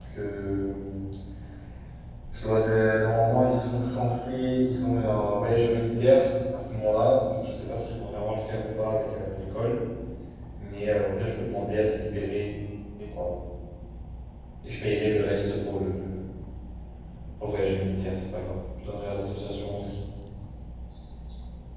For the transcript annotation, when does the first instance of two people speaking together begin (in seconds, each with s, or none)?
none